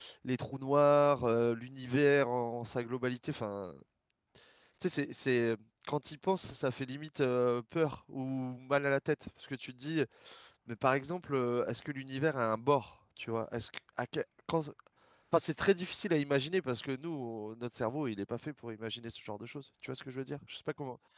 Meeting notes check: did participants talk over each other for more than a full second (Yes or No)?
No